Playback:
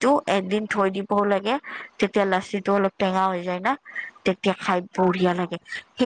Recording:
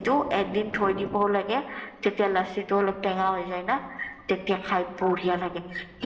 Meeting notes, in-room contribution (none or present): none